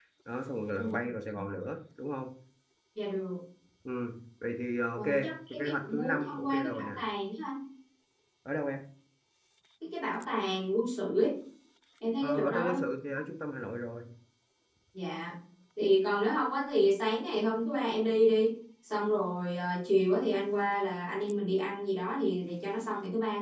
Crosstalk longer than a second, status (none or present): present